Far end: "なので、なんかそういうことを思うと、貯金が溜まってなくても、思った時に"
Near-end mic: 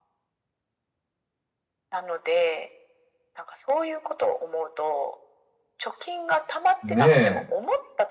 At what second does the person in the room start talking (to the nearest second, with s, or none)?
7 s